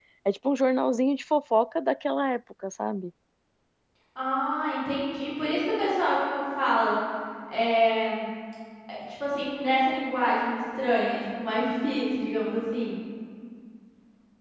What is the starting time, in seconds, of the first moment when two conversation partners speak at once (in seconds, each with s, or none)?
none